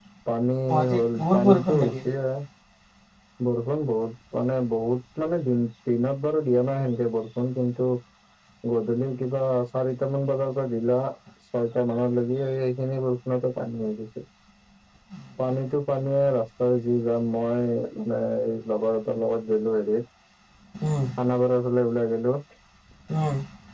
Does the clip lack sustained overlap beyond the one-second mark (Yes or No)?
No